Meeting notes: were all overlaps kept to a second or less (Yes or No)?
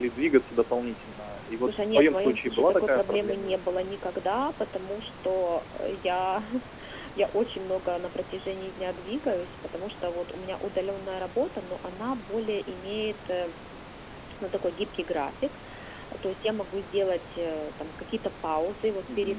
No